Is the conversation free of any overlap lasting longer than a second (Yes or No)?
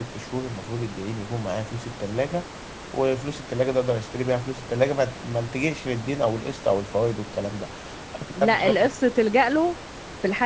Yes